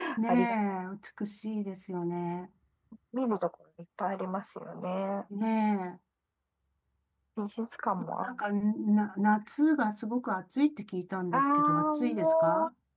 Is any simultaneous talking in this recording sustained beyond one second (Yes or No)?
Yes